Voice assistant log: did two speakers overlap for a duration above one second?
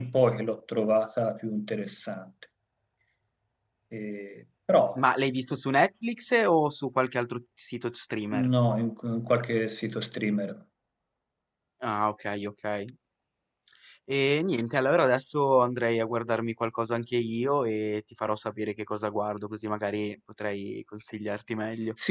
No

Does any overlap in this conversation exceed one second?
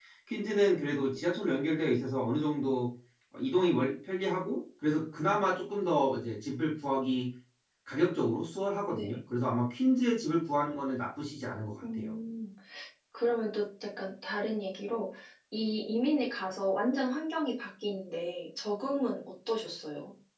No

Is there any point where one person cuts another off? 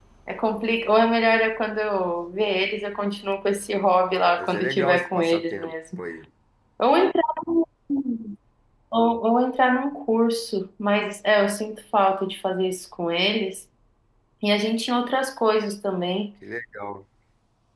Yes, from 4.4 s

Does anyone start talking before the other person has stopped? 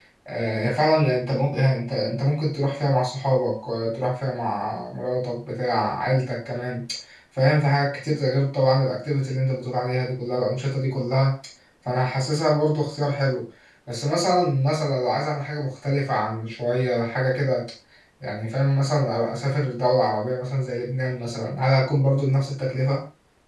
No

